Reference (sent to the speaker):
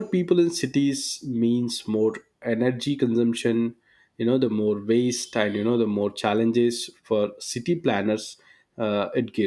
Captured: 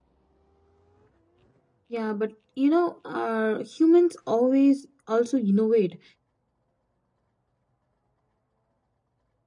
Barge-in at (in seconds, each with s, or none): 1.9 s